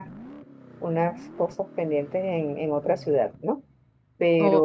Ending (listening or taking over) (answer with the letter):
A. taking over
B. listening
B